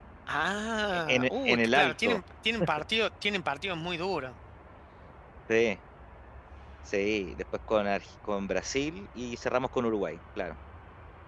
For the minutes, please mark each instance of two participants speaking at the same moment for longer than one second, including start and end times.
0.9-2.2

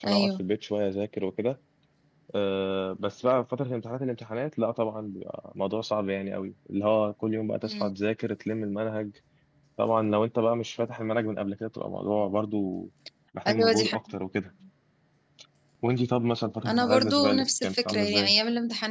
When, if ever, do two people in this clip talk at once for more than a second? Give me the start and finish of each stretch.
16.7-18.3

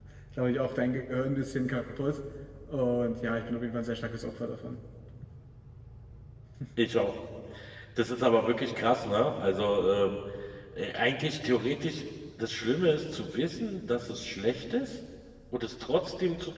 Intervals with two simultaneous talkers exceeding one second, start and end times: none

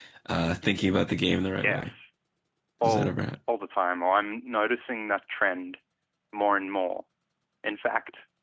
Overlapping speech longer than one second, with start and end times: none

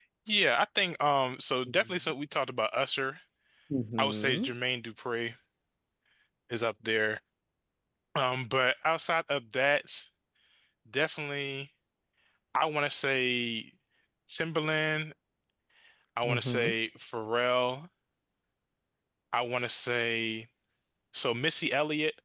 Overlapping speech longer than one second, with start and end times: none

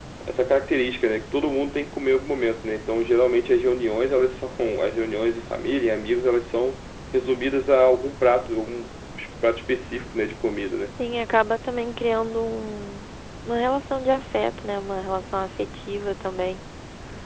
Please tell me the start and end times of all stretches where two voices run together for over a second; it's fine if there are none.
none

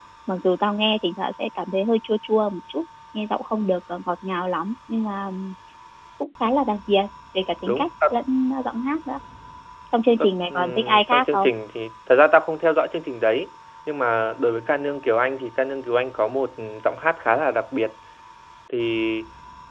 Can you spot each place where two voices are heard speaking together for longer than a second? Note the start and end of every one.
10.2-11.5

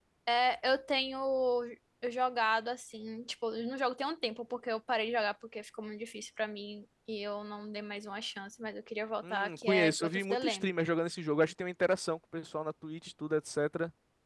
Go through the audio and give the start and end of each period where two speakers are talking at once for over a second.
9.3-10.7

